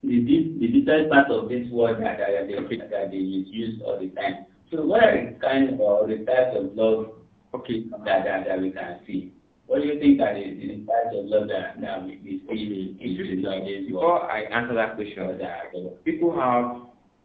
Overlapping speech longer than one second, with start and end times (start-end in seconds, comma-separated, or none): 12.5-14.1